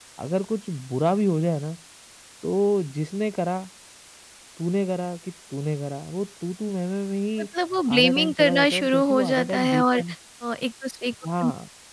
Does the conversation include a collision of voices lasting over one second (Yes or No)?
Yes